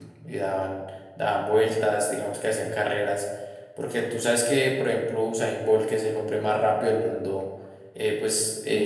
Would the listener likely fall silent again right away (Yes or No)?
Yes